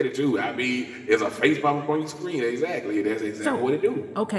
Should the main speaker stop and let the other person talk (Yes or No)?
Yes